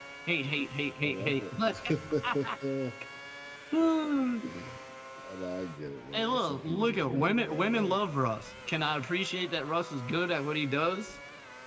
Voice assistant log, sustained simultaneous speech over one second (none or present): present